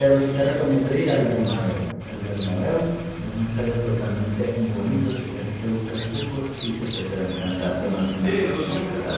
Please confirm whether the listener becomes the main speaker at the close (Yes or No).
Yes